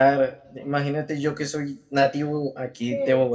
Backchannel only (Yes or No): Yes